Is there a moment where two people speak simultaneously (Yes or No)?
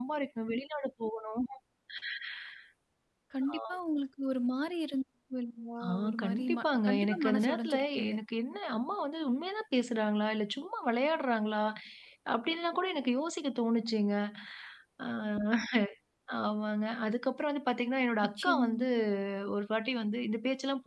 Yes